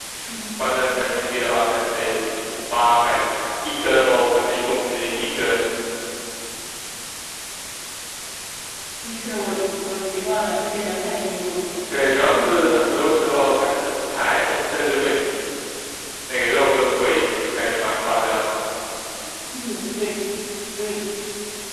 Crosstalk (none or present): none